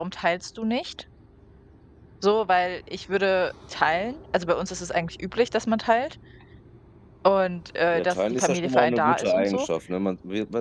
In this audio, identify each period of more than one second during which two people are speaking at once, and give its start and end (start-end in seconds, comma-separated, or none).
7.9-9.7